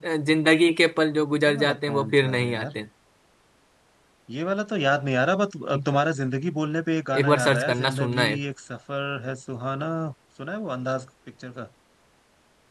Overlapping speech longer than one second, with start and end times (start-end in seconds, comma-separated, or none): 1.4-2.7, 7.2-8.4